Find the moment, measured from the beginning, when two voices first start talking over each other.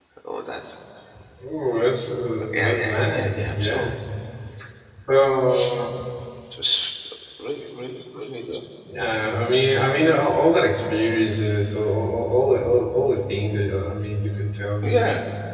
3 s

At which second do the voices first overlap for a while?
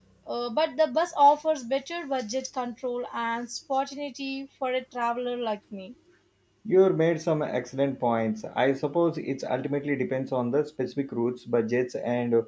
none

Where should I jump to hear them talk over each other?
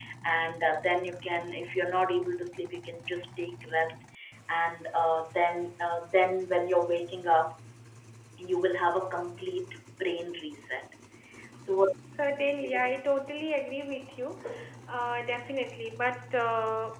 none

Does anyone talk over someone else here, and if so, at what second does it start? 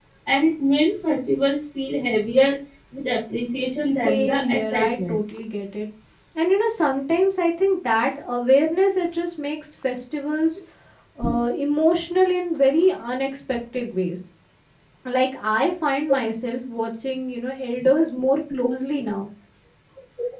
4 s

